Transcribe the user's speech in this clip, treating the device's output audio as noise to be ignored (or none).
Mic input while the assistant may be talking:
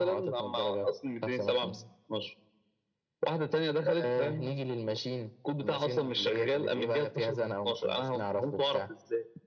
none